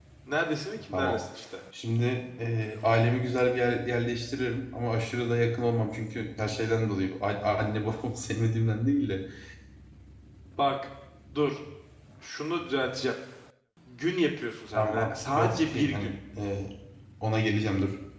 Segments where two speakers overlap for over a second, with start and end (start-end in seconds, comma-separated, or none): 14.8-16.1